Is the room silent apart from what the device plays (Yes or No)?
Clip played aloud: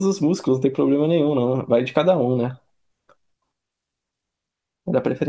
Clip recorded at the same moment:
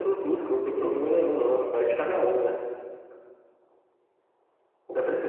Yes